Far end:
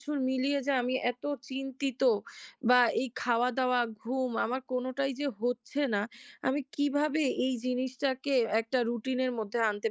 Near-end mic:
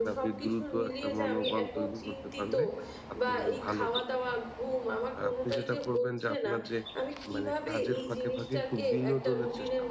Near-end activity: present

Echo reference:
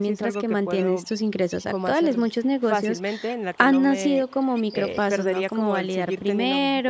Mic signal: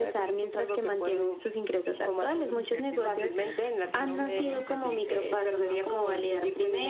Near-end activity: present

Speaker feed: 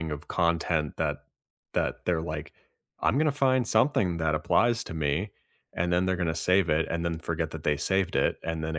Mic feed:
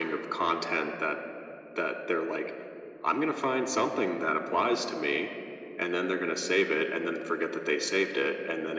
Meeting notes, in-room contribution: none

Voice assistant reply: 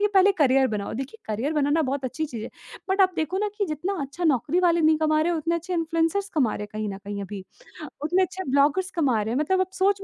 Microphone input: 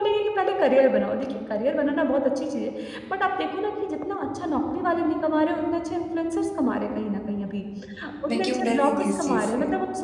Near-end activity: present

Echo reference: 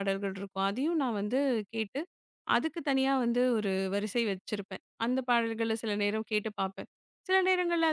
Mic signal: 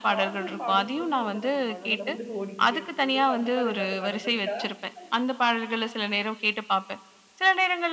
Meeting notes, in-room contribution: present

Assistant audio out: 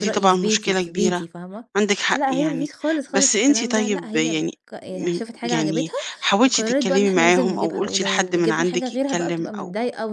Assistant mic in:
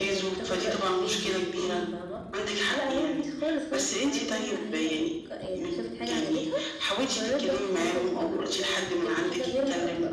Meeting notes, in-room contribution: none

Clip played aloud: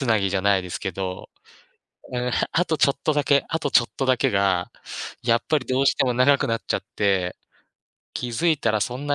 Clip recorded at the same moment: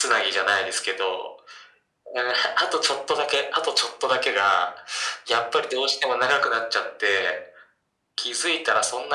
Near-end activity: none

